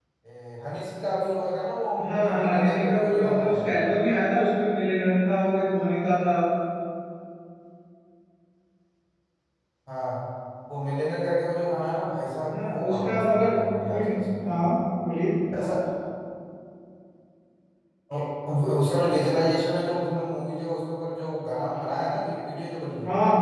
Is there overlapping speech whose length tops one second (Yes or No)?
Yes